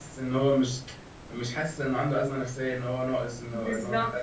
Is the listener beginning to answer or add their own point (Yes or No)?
Yes